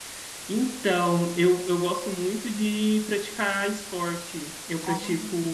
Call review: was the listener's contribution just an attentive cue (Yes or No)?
Yes